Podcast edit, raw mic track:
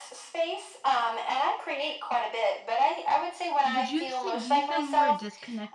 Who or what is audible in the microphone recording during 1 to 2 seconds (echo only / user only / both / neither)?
echo only